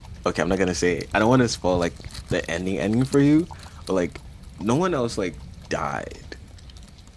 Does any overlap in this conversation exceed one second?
No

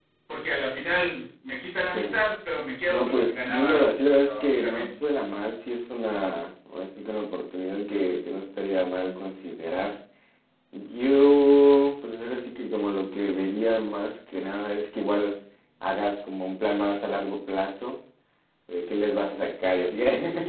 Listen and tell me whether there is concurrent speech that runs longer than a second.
Yes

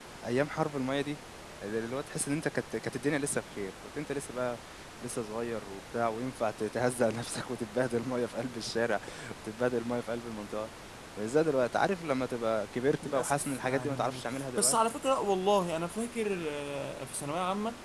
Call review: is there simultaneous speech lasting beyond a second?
Yes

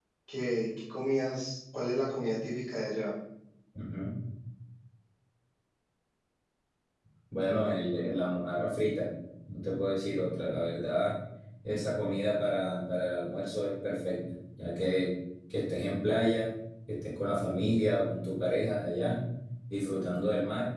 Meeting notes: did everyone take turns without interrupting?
Yes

